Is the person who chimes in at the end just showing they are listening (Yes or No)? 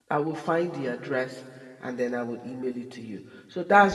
Yes